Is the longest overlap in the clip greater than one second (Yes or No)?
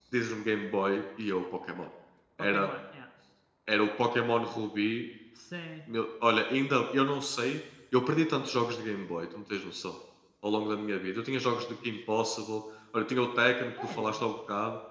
No